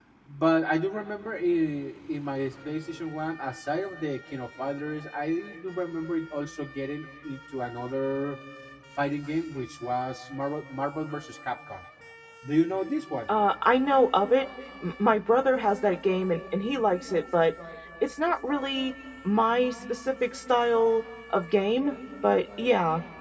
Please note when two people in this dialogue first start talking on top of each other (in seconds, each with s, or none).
none